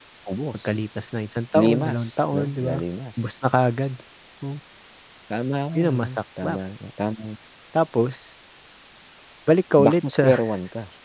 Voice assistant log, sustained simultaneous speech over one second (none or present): present